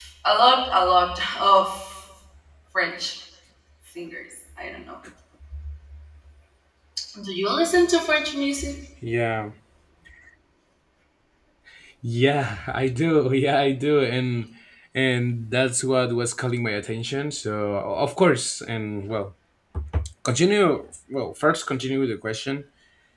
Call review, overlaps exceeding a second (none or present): none